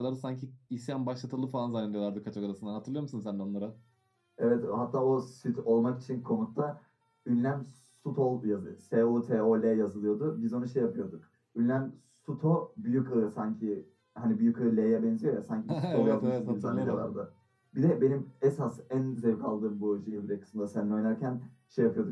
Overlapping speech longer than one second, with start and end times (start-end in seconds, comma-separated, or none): 15.7-17.0